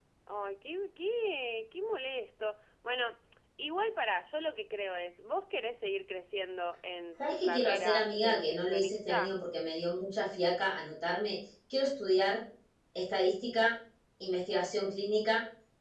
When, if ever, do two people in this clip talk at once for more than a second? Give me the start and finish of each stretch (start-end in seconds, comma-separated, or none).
7.3-9.4